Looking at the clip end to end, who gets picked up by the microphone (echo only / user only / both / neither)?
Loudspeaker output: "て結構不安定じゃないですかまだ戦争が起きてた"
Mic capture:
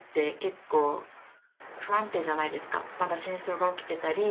echo only